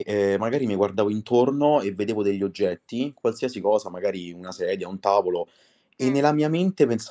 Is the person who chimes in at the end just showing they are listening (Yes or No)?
Yes